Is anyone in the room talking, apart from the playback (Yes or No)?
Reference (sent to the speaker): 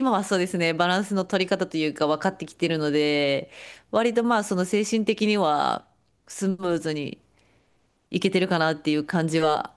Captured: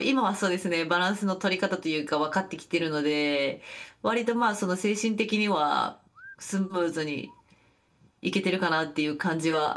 No